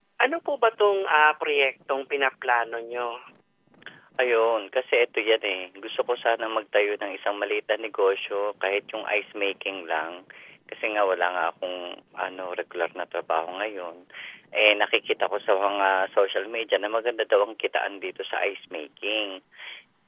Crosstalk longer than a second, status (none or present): none